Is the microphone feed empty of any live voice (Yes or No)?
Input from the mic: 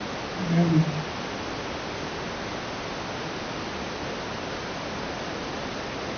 No